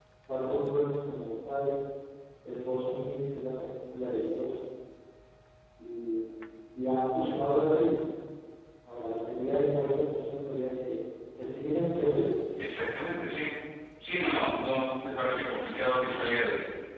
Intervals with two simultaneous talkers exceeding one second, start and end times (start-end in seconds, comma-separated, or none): none